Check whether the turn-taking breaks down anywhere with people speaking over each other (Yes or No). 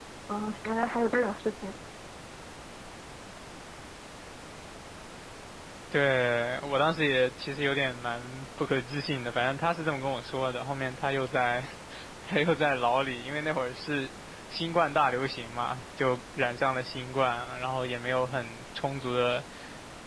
No